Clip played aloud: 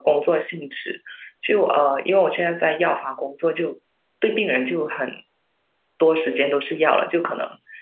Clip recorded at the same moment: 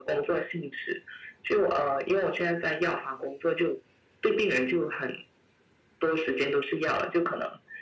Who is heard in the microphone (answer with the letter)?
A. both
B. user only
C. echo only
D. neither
C